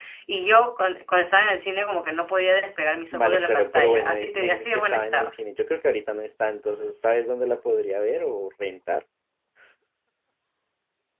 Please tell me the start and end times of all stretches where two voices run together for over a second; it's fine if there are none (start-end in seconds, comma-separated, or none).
3.1-5.3